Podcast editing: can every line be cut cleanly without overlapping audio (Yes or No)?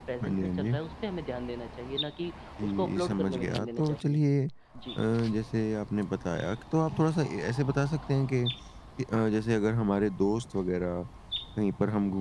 No